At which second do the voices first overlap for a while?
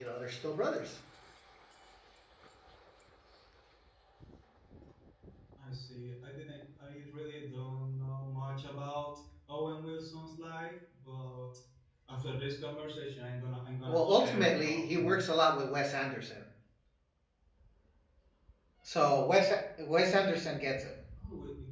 13.9 s

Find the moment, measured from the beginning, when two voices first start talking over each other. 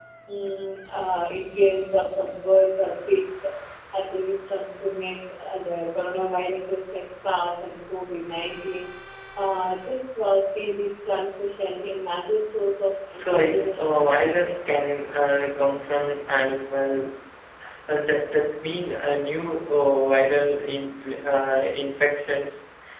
13.1 s

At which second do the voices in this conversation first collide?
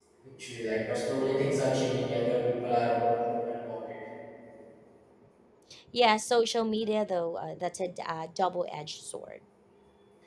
none

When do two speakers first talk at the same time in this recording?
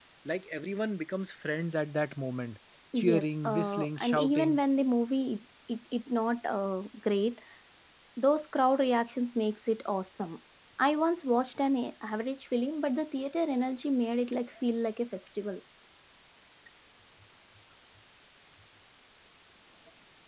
2.9 s

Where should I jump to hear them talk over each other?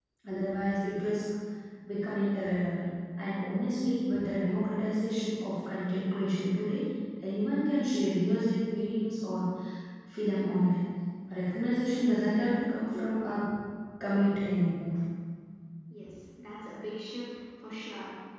none

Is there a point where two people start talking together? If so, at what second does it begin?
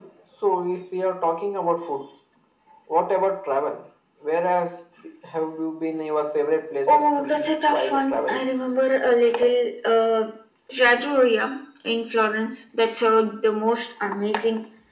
6.9 s

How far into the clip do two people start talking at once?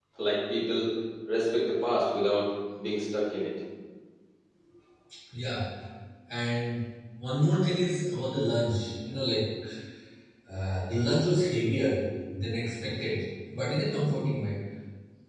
none

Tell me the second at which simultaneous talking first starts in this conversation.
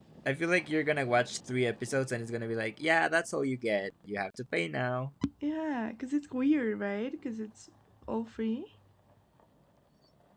none

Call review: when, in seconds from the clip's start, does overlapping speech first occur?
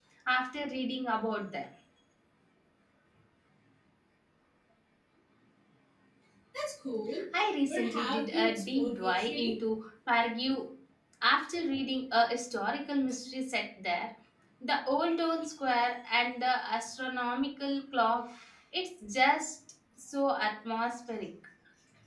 7.7 s

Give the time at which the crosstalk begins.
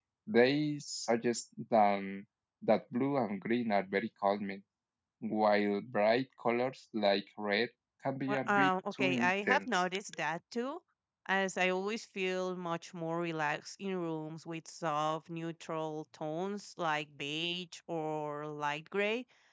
8.3 s

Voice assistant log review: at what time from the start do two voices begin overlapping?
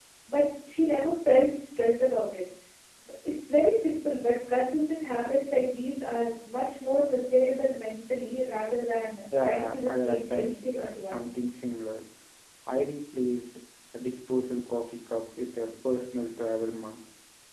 9.3 s

